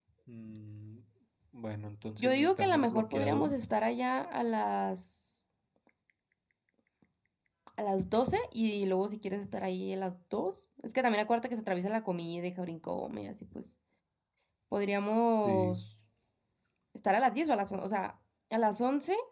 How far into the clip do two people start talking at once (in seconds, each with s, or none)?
2.2 s